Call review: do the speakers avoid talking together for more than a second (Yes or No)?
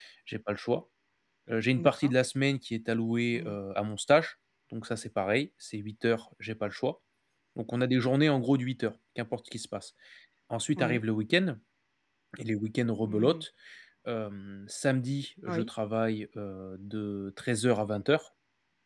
Yes